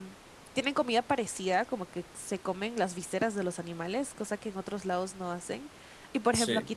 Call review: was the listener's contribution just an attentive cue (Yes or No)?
Yes